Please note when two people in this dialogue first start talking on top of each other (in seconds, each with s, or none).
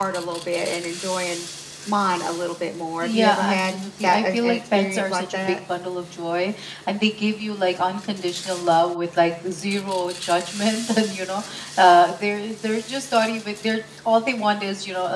3.0 s